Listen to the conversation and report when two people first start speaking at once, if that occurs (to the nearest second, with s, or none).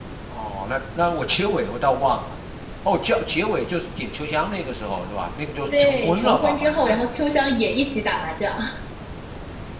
6 s